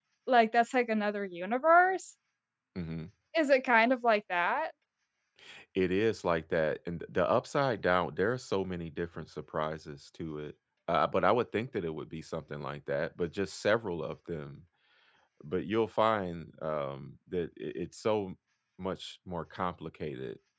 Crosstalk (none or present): none